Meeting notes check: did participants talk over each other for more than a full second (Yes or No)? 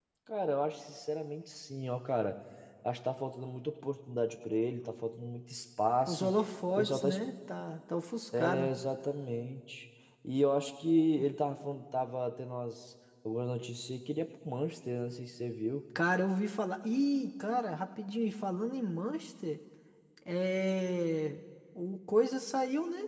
No